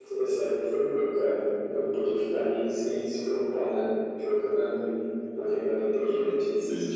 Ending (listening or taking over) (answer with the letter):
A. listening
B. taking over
B